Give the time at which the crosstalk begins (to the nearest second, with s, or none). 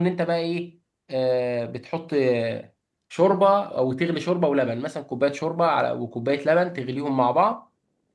none